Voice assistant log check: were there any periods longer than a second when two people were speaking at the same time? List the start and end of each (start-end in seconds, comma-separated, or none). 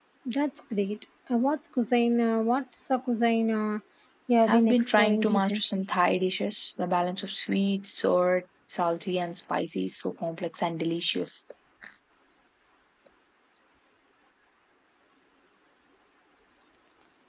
4.5-5.8